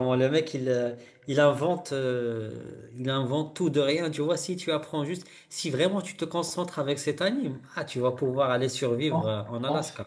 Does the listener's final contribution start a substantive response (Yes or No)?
Yes